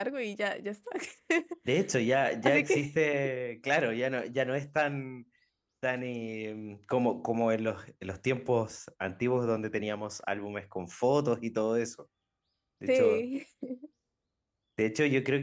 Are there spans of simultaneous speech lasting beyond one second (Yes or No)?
No